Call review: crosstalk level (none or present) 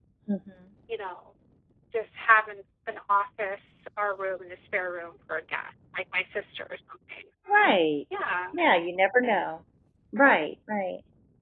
none